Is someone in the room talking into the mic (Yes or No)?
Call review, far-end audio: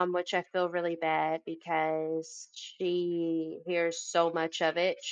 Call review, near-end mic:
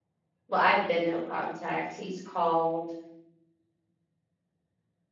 Yes